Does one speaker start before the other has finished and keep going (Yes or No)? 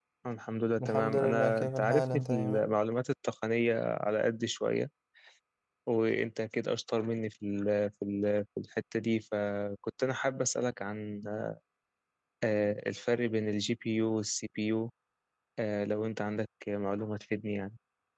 Yes